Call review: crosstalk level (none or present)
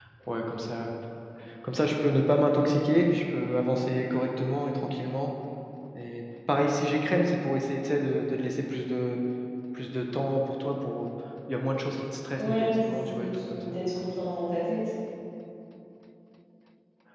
present